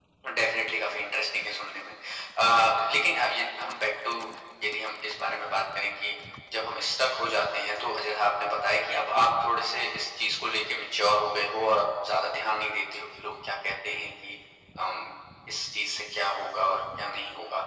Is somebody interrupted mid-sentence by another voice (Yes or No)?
No